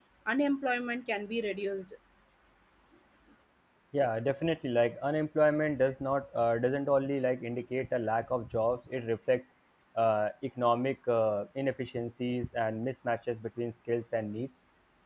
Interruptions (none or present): none